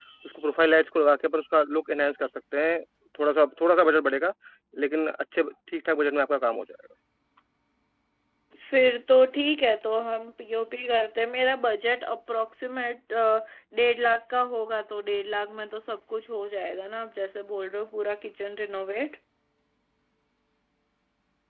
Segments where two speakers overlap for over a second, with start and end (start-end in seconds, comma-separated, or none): none